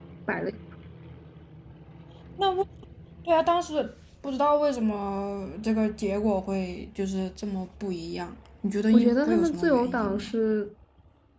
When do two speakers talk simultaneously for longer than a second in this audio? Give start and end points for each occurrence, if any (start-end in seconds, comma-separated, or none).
8.9-10.3